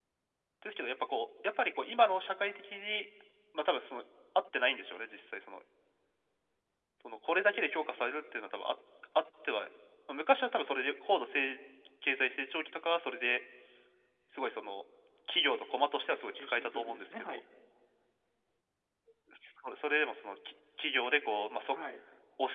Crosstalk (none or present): present